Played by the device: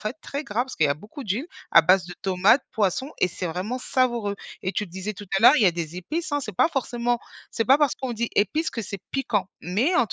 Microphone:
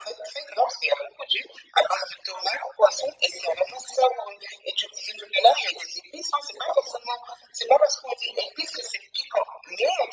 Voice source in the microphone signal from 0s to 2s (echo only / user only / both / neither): echo only